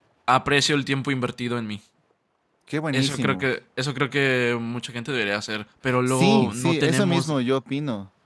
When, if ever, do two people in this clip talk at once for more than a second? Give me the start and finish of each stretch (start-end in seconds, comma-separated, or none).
6.1-7.4